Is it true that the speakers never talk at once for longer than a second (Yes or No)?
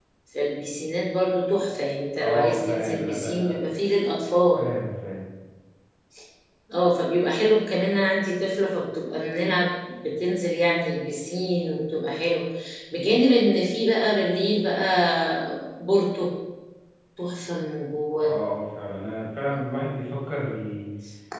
No